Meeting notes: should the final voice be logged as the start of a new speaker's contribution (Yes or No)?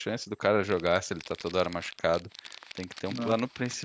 No